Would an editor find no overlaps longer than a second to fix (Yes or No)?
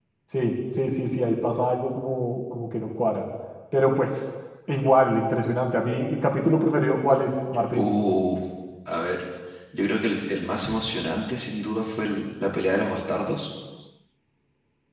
Yes